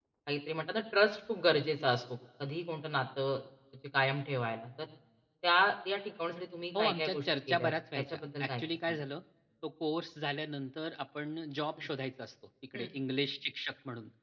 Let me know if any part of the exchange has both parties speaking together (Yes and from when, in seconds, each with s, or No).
Yes, from 6.7 s